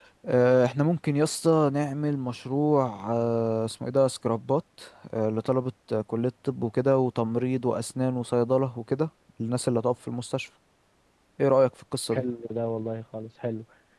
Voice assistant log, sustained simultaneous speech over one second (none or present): none